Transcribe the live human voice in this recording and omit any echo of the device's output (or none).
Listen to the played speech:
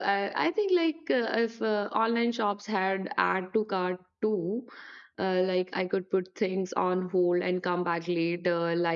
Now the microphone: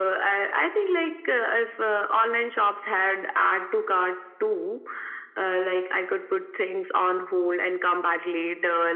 none